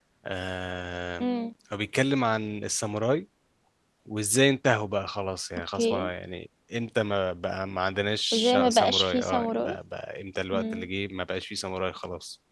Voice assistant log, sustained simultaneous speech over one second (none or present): present